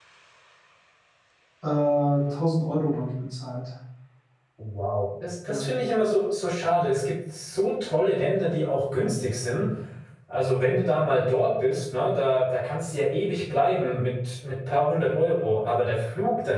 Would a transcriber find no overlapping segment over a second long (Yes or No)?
Yes